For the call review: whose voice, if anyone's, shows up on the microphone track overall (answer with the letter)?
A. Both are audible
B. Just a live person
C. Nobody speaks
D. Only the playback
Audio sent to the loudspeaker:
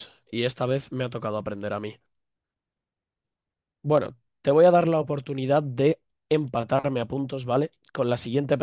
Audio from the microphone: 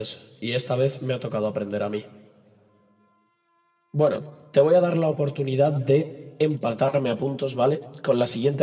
D